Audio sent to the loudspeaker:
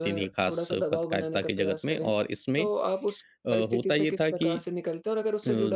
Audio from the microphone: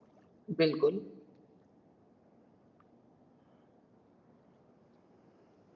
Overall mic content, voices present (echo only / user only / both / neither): user only